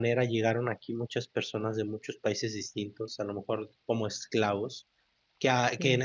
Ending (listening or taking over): listening